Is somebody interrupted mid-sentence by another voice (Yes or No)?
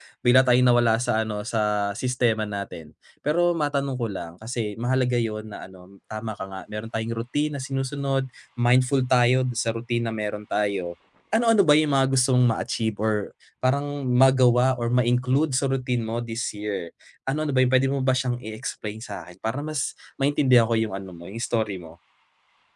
No